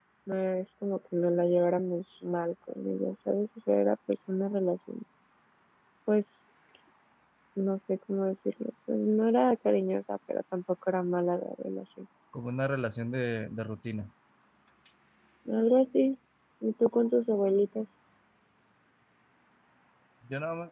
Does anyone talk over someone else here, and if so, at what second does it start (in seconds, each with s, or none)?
none